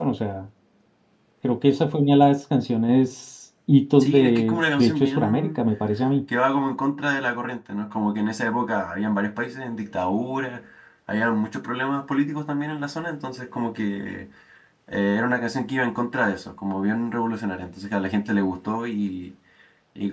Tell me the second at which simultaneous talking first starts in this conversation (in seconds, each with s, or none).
4.0 s